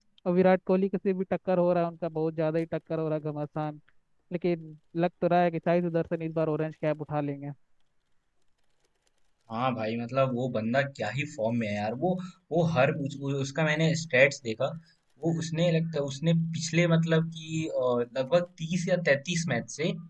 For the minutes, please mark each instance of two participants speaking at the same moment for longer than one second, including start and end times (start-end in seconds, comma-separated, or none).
none